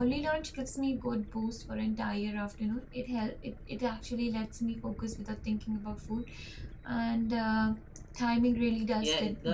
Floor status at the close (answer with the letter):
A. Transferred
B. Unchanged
A